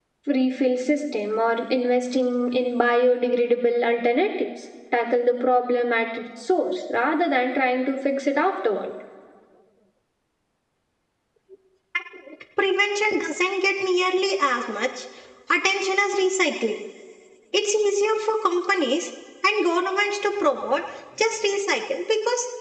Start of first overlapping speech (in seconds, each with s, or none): none